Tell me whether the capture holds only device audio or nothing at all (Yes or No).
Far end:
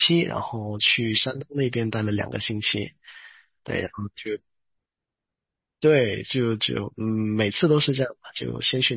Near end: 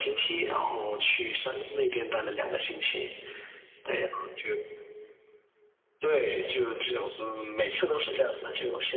Yes